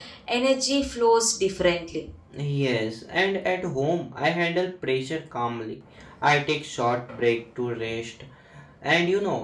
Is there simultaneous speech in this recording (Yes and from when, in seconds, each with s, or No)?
No